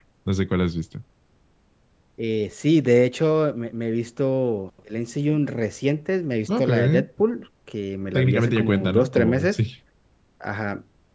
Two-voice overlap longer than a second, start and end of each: 8.2-9.6

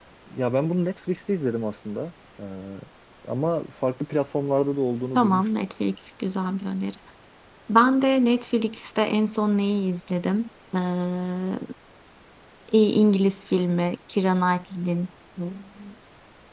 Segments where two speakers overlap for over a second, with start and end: none

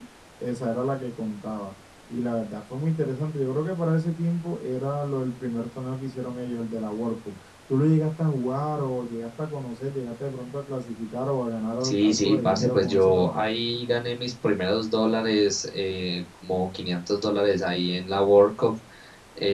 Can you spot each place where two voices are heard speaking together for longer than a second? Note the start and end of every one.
11.8-13.5

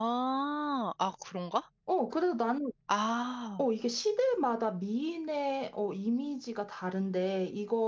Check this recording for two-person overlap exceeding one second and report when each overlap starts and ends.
none

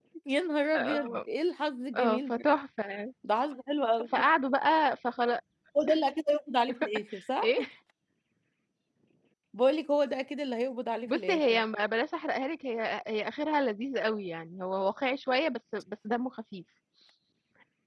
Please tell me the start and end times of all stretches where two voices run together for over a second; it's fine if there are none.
none

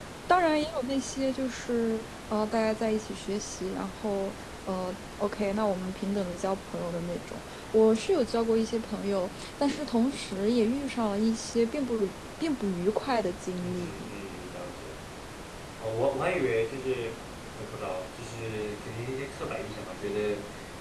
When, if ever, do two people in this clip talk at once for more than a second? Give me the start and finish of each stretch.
none

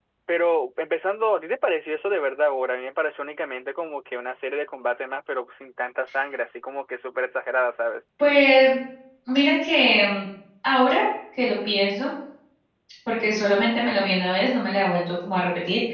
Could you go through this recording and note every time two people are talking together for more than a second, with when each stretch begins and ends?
none

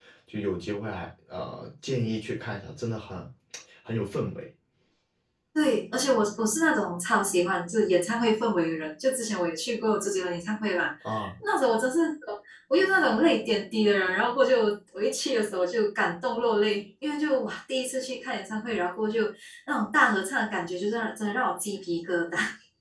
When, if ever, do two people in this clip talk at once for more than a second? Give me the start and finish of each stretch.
none

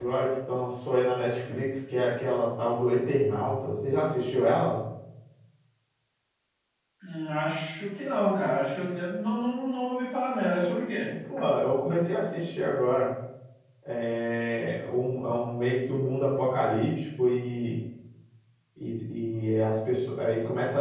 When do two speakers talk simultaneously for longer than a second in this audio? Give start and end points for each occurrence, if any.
none

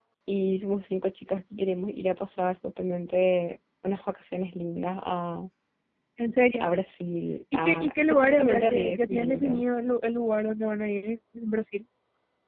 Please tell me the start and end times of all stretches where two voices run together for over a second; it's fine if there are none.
7.5-9.6

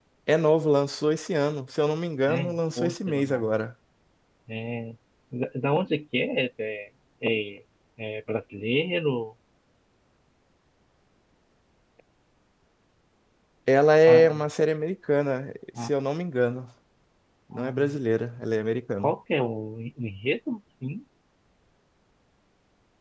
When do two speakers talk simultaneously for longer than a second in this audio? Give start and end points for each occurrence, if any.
2.3-3.5

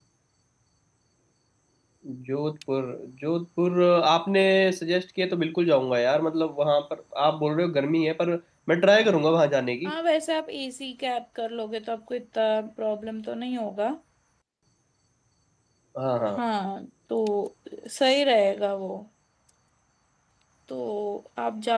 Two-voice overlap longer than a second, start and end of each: none

